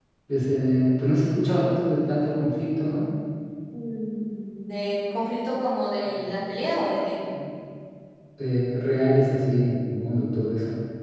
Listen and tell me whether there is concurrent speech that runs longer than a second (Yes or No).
No